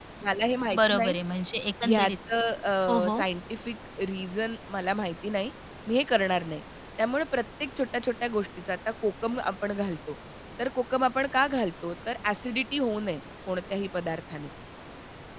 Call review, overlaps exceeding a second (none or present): none